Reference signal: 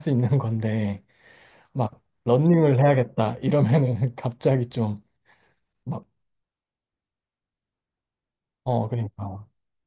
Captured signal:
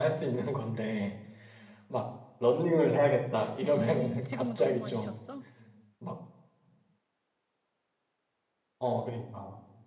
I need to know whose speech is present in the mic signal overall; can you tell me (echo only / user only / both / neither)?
both